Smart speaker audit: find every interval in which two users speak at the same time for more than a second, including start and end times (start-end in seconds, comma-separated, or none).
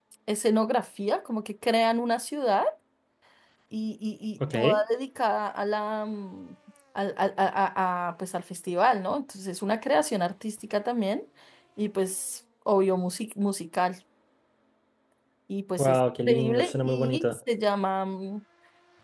15.8-17.4